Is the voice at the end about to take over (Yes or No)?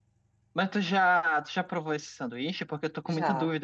No